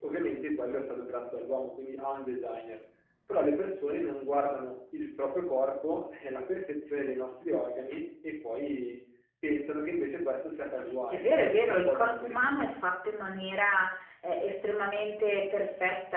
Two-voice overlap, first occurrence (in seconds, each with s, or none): 11.1 s